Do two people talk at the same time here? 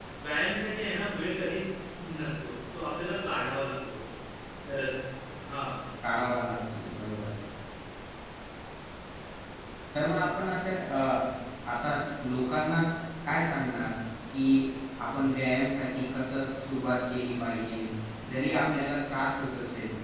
No

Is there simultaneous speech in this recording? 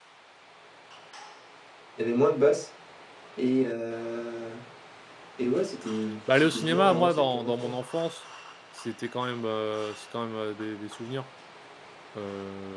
Yes, from 6.3 s

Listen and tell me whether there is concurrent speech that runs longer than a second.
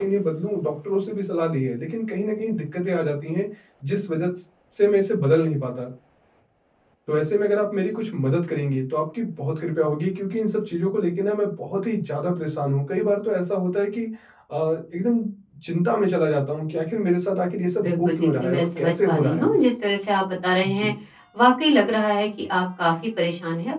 Yes, from 17.8 s

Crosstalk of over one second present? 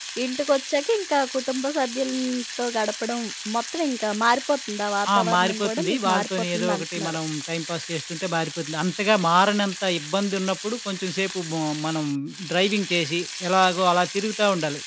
Yes, from 5.0 s

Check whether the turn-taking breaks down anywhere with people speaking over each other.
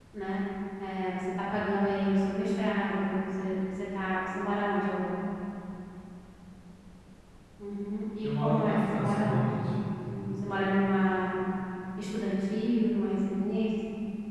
Yes, from 8.2 s

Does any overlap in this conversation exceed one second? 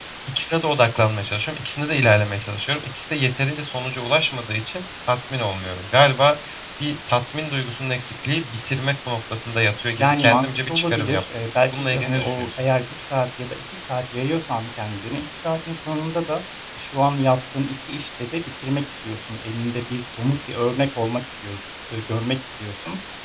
Yes, from 10.0 s

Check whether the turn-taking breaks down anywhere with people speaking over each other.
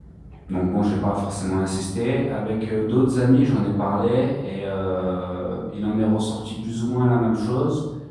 No

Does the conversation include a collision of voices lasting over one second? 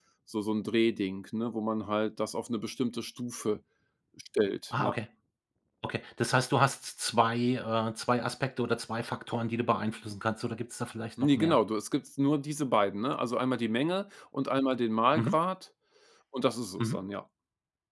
No

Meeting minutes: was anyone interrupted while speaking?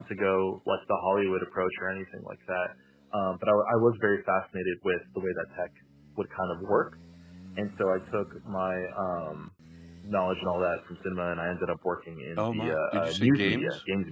Yes, from 12.4 s

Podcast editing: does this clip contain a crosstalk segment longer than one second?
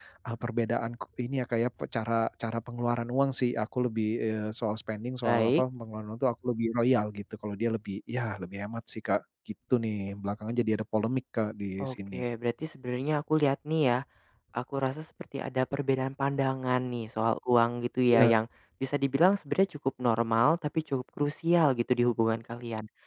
No

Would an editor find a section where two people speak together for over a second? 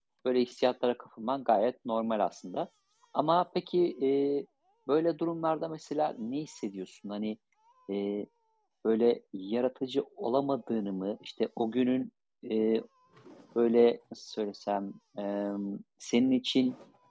No

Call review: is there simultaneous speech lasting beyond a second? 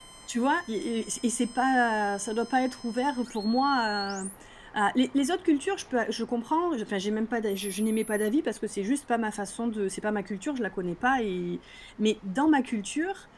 No

